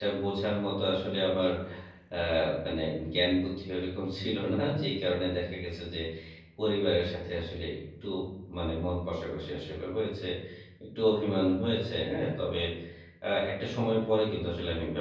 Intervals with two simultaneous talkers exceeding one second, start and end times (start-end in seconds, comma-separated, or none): none